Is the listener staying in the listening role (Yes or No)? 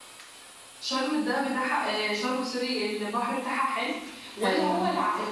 Yes